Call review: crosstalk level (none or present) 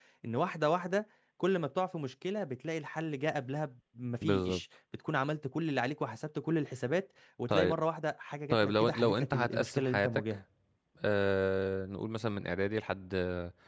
present